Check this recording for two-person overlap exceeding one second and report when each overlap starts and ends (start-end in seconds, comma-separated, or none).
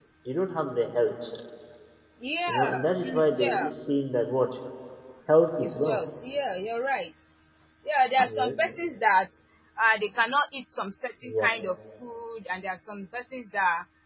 2.5-3.7